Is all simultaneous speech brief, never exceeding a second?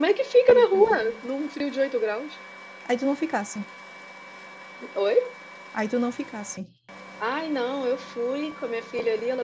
Yes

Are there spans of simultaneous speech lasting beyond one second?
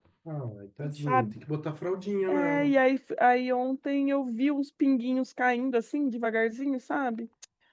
No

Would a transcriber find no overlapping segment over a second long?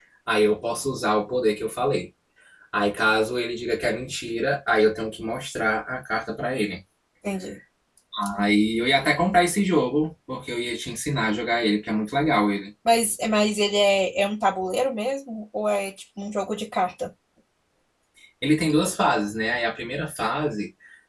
Yes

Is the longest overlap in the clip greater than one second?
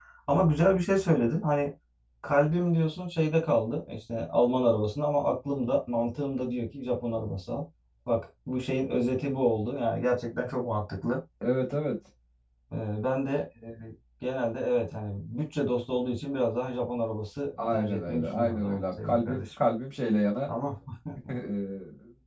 Yes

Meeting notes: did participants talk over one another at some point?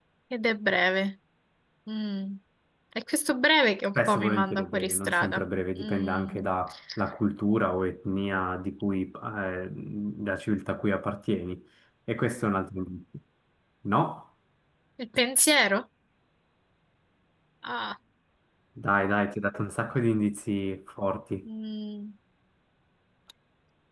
Yes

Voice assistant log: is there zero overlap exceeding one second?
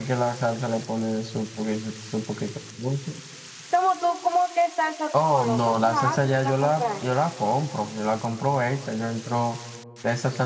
No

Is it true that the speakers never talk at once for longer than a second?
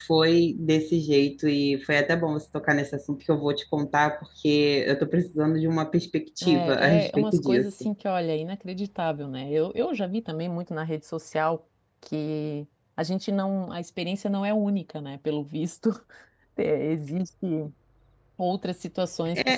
No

